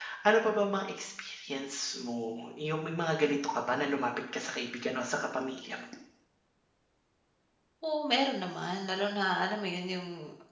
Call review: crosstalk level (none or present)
none